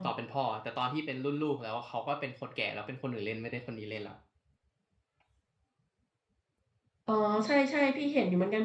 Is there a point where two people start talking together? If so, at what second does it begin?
none

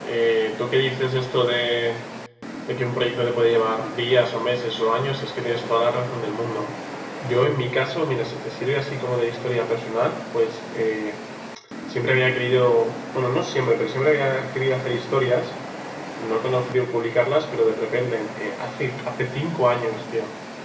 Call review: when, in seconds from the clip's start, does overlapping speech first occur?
none

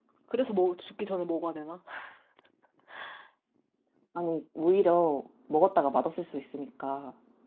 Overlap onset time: none

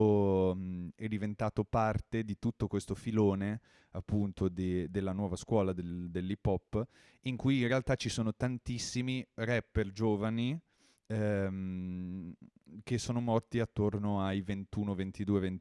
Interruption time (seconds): none

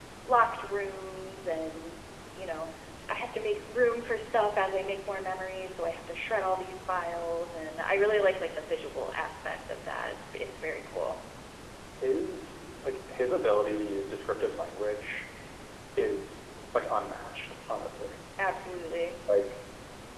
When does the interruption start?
none

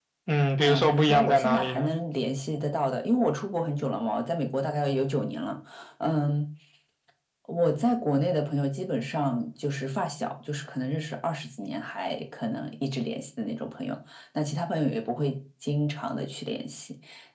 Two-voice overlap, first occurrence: 0.6 s

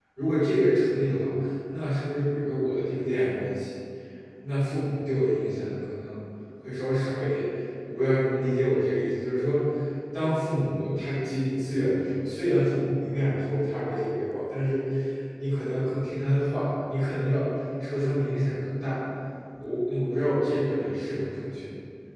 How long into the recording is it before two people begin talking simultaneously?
none

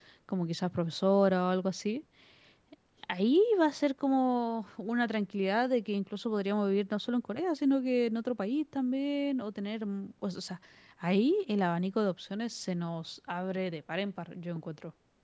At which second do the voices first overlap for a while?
none

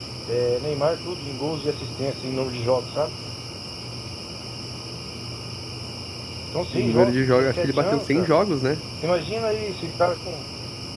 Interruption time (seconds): 6.7 s

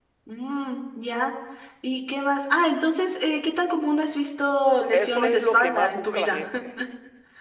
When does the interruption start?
4.9 s

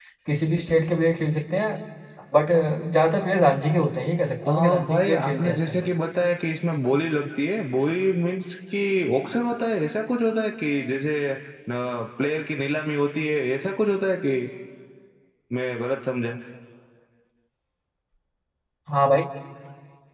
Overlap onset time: 4.4 s

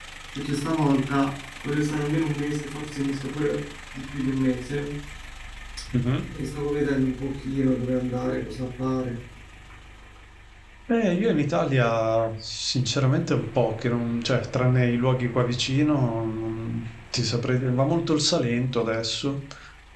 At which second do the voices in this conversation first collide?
none

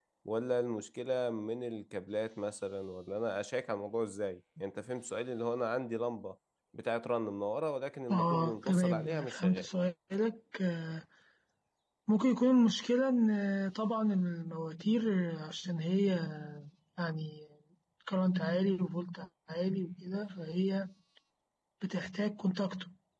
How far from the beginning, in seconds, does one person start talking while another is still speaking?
8.1 s

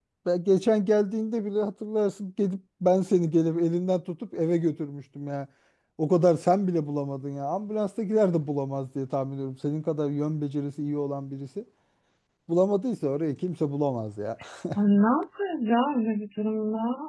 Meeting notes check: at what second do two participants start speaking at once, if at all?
none

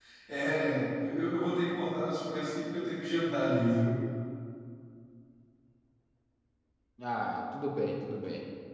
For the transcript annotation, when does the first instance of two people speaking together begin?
none

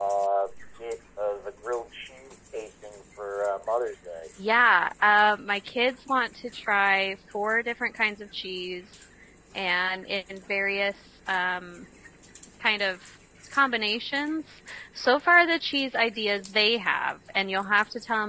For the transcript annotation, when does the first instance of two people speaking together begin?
none

